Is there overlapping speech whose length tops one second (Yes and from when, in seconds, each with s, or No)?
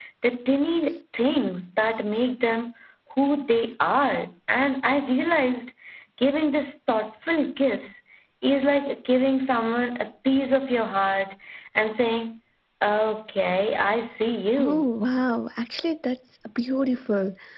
No